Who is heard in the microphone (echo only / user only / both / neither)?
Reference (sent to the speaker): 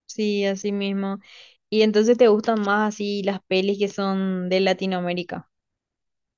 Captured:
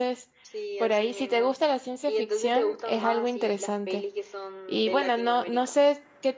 both